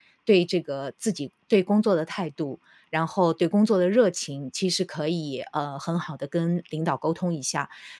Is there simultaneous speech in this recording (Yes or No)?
No